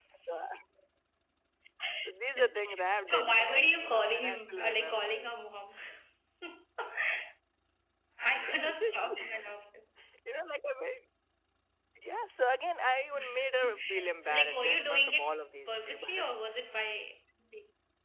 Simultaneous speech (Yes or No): Yes